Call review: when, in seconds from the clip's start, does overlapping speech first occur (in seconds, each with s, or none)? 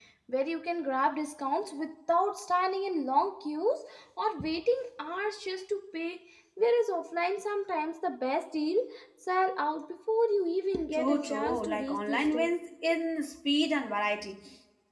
10.9 s